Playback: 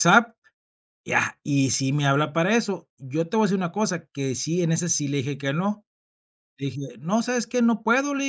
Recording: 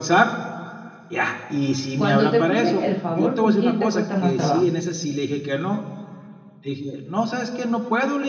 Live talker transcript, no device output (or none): Cuando te piden el favor, ¿con quién te cuesta más trabajo?